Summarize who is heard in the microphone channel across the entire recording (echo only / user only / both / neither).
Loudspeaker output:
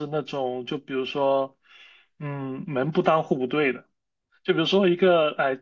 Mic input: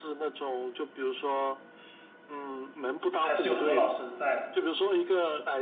both